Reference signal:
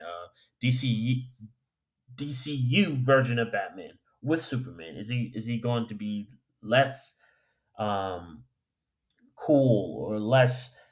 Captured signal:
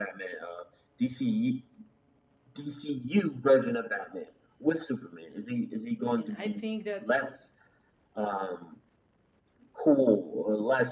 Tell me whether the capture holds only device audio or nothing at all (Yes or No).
No